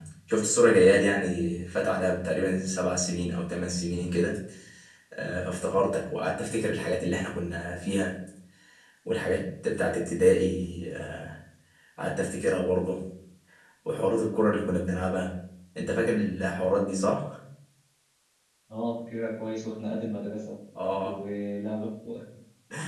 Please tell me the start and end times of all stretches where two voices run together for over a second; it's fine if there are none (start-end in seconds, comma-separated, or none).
none